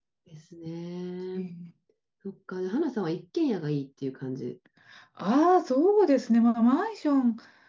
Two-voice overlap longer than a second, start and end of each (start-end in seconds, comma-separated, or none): none